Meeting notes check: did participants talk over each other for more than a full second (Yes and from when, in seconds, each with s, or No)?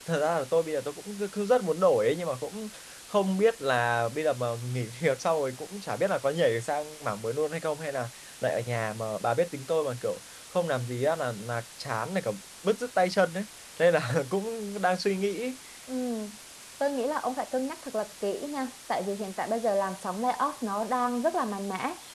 No